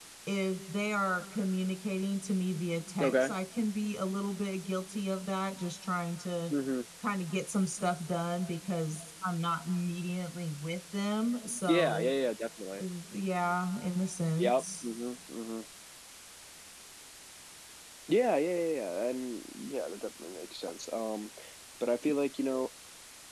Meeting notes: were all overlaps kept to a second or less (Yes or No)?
Yes